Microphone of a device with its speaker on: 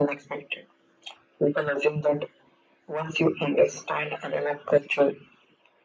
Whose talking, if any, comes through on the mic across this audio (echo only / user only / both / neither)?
echo only